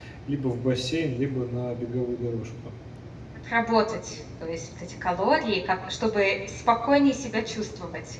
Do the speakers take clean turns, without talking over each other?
Yes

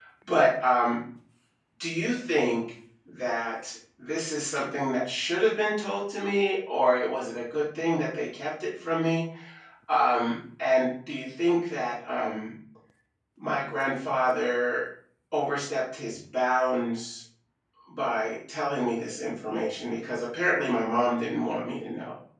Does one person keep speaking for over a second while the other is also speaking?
No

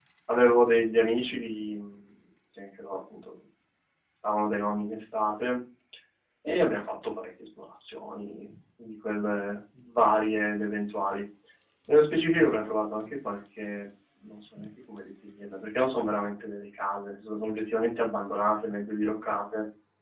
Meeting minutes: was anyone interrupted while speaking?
No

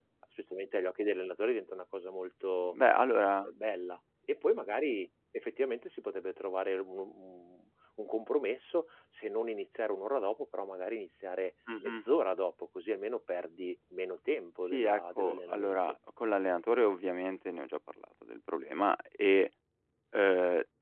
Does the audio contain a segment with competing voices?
Yes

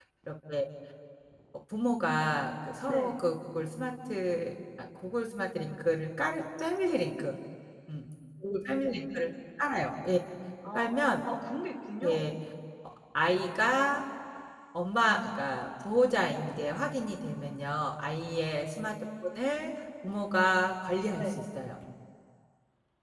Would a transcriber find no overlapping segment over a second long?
Yes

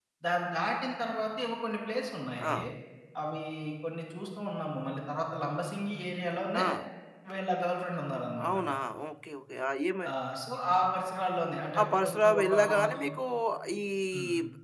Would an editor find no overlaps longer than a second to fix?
No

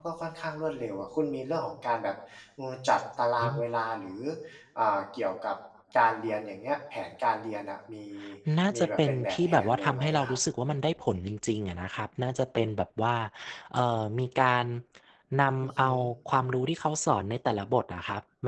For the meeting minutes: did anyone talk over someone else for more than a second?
Yes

